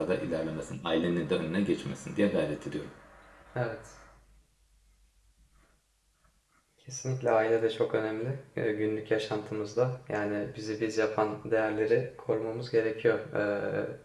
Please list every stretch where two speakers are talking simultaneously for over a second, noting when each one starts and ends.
none

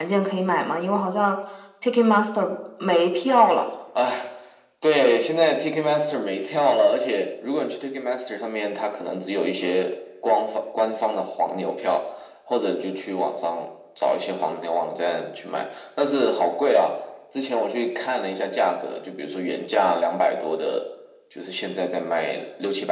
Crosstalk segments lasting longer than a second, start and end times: none

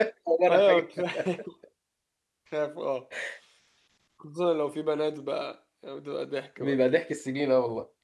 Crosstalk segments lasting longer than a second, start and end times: none

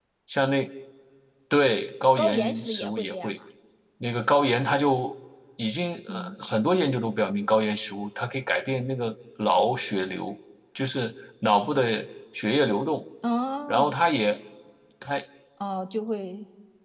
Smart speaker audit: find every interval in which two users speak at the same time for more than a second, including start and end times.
2.2-3.4

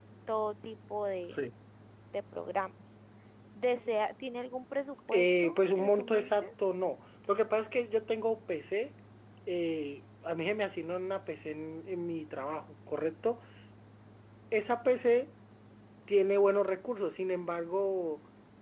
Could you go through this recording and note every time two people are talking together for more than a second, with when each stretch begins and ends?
5.1-6.5

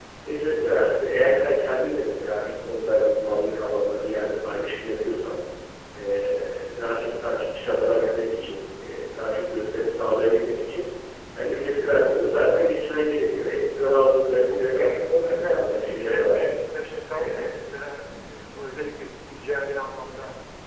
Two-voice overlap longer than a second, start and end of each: 14.3-16.4

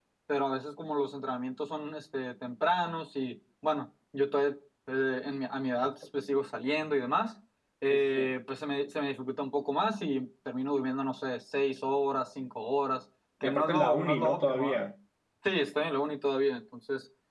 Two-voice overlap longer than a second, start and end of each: 13.4-14.9

